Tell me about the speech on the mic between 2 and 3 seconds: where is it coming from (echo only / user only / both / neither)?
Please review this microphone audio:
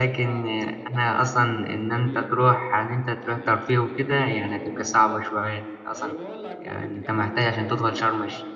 both